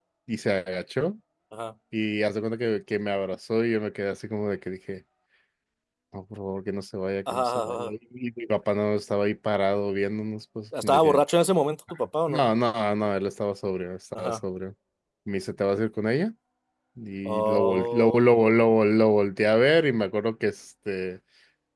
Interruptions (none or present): present